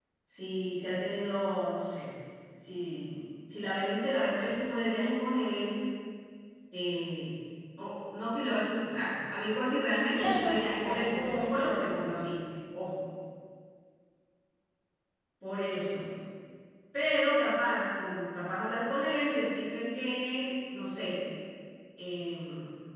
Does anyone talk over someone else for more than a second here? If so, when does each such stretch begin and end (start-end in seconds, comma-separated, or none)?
10.2-12.3